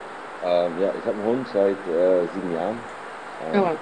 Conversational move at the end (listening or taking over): listening